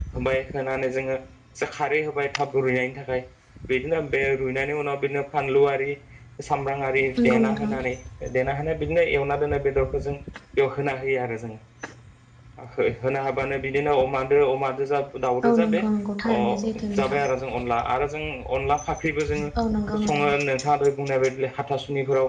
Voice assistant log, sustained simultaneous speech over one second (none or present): none